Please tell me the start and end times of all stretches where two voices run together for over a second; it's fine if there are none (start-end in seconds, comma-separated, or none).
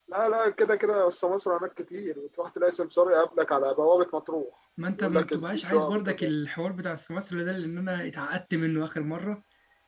5.0-6.3